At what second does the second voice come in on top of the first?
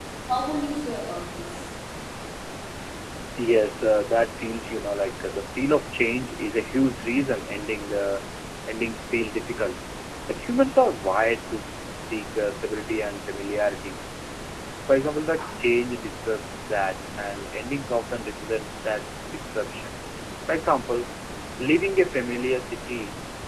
none

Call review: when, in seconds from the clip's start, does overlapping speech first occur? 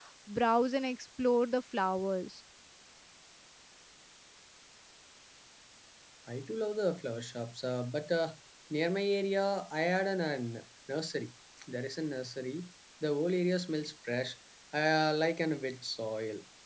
none

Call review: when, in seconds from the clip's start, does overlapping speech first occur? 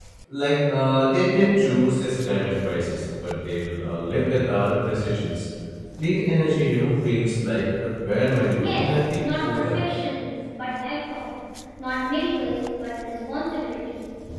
8.6 s

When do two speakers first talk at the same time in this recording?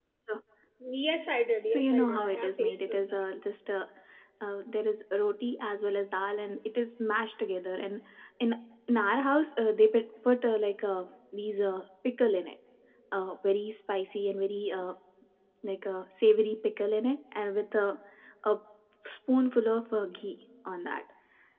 1.7 s

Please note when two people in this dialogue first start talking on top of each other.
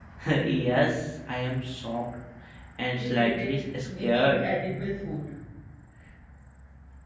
3.0 s

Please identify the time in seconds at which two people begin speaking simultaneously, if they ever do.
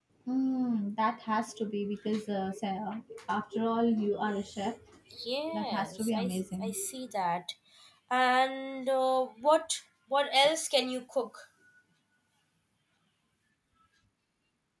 5.5 s

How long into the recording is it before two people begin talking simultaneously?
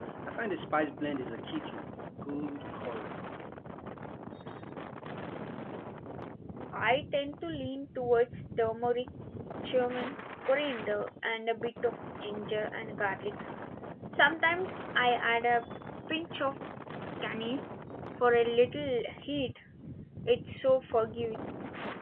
none

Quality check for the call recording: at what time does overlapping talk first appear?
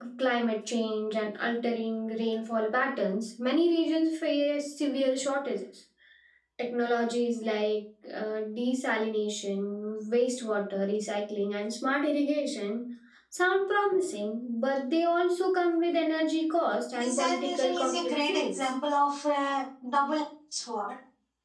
16.9 s

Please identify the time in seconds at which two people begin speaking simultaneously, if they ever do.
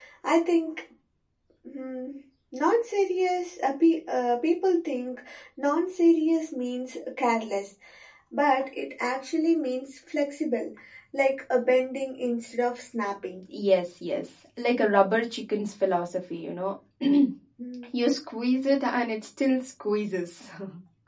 none

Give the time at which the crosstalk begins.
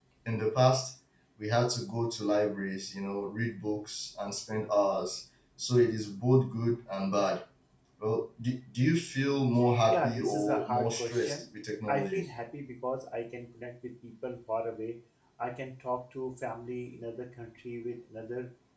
9.9 s

